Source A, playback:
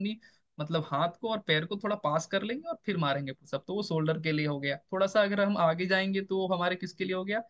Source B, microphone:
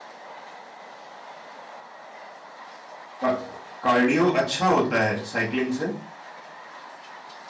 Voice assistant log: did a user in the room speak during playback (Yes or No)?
Yes